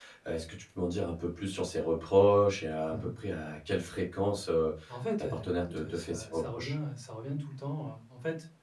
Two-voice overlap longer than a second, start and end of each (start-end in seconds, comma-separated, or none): 5.2-6.7